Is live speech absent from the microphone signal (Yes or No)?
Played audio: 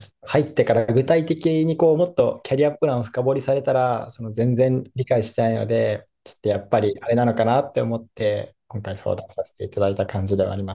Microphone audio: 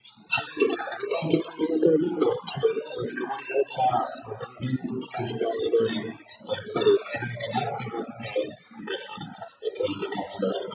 Yes